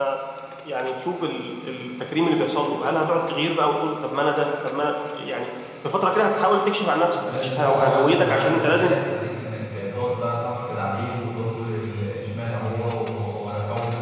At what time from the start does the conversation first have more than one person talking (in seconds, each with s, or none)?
7.1 s